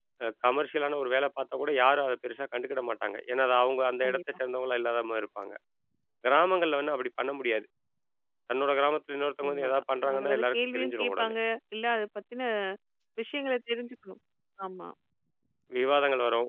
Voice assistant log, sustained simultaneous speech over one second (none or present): present